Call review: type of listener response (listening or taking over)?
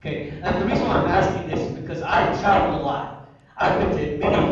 listening